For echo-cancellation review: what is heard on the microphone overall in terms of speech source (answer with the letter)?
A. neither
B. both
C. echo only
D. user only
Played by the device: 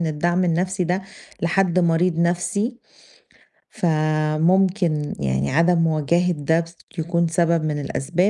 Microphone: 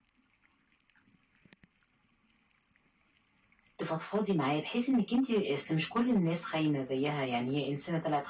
D